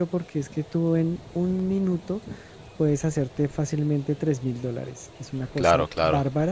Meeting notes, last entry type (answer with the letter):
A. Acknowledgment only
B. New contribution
A